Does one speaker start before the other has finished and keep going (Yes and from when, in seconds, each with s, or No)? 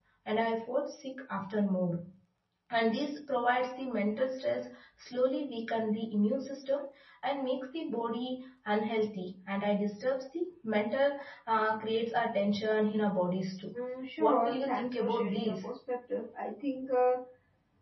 Yes, from 14.2 s